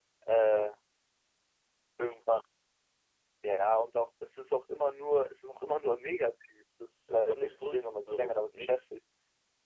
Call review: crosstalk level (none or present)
present